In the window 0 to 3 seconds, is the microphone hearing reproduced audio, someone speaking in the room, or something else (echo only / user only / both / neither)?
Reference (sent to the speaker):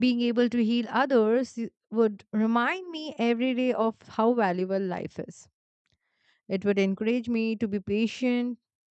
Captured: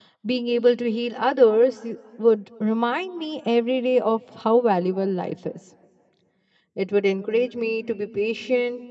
echo only